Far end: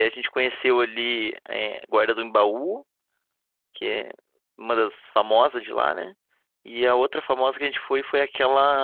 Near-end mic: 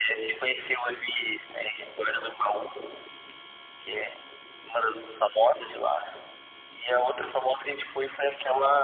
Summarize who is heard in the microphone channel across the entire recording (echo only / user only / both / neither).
echo only